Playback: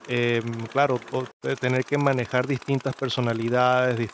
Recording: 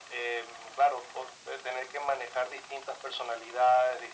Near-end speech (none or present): none